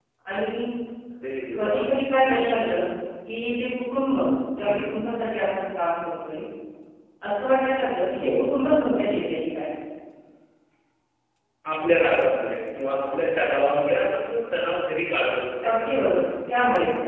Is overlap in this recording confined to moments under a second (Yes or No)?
Yes